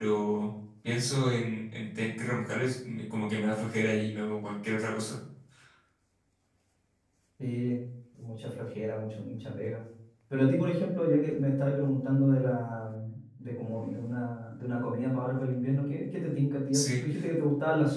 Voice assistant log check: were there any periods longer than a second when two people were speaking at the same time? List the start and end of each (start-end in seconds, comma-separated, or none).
none